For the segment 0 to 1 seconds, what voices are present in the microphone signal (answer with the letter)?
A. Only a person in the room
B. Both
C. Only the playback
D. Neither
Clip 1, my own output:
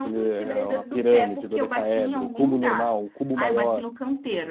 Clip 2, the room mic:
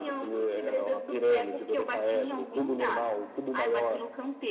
C